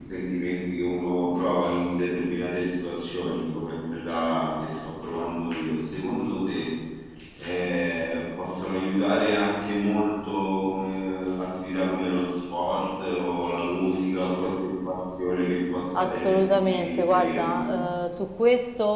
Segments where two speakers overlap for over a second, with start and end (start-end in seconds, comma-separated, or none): 15.9-17.7